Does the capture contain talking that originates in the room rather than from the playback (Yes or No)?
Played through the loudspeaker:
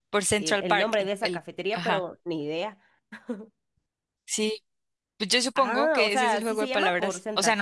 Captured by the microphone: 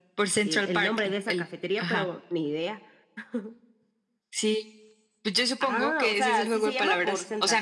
No